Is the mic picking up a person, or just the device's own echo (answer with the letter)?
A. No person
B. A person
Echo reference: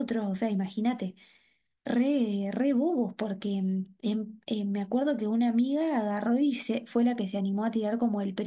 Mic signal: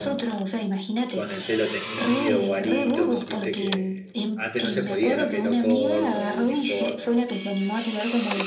B